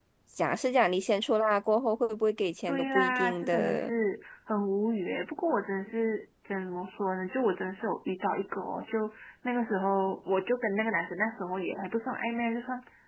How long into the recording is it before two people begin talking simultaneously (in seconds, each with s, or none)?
2.7 s